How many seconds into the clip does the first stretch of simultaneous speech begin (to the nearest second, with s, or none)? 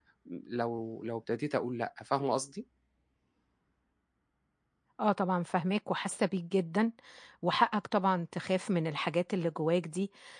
none